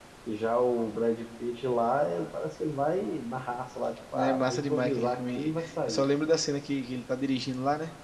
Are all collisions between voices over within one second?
No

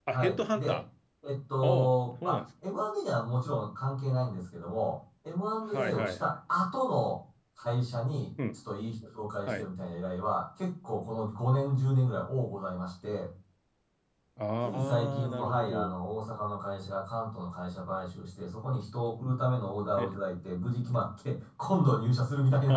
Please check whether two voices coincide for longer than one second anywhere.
Yes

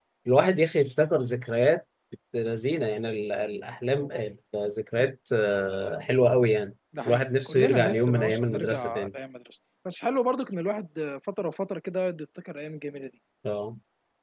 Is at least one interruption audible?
Yes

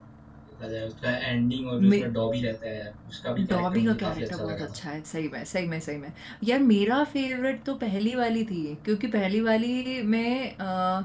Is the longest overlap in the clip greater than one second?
Yes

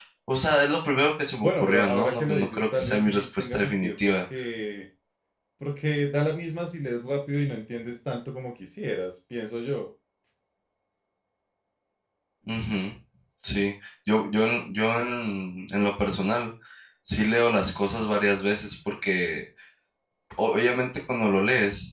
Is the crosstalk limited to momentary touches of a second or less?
No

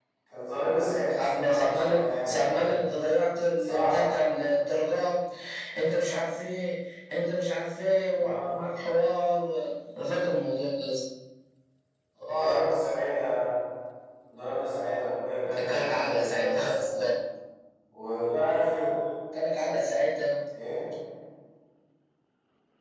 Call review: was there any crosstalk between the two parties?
Yes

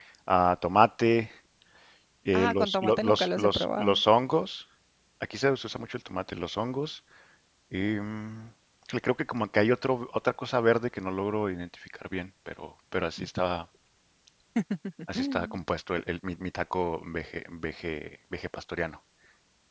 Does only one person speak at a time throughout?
No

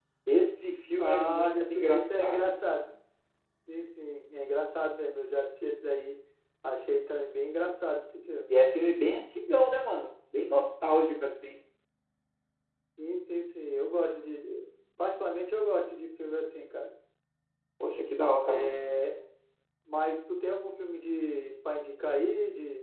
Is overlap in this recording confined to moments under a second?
No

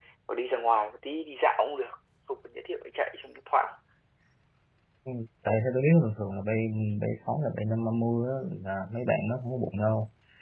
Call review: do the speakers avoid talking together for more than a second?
Yes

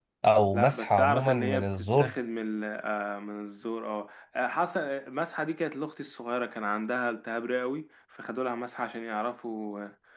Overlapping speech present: Yes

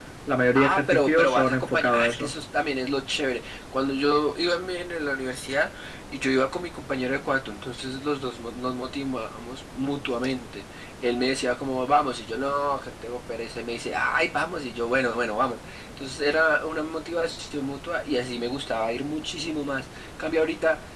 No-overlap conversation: No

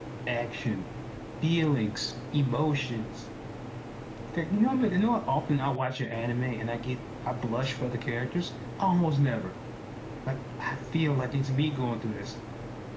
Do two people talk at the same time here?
No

